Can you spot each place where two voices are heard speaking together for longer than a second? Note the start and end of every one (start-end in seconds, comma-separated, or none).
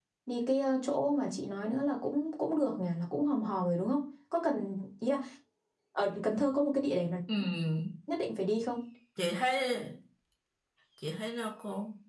none